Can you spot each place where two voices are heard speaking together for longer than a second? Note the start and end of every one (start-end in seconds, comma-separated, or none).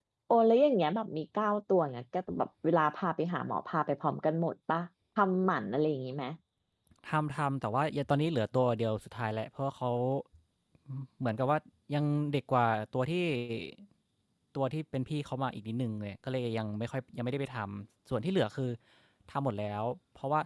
none